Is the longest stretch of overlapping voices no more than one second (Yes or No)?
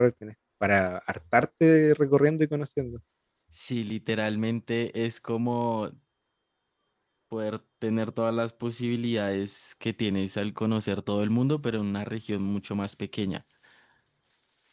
Yes